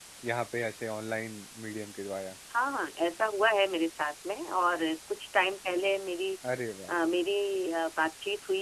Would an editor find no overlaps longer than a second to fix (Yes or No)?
Yes